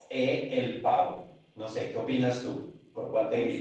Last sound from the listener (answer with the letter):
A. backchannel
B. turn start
B